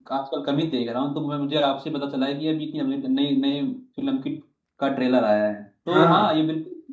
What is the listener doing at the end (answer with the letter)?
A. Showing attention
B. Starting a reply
A